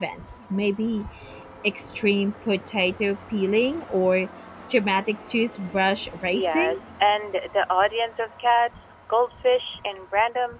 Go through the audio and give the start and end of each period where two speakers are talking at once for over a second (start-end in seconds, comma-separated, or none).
none